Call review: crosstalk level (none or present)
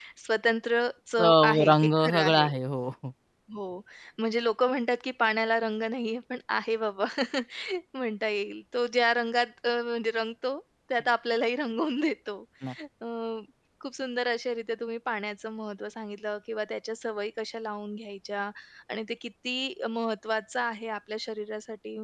present